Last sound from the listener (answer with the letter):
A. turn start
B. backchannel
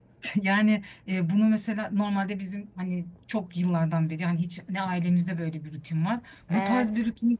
B